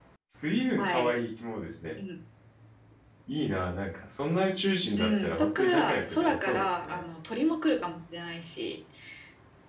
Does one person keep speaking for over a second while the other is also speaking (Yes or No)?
Yes